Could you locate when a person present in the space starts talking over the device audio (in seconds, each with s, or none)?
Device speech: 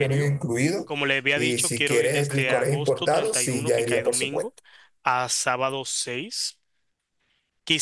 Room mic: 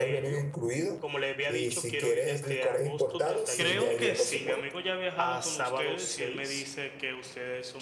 3.6 s